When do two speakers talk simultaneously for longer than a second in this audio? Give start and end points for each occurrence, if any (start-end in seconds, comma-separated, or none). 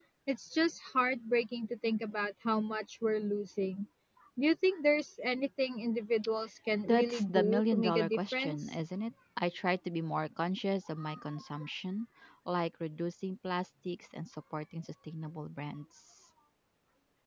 6.9-8.8